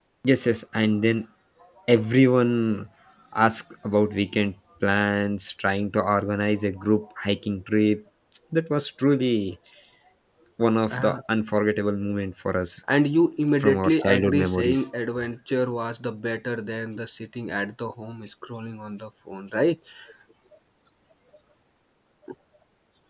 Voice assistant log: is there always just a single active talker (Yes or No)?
No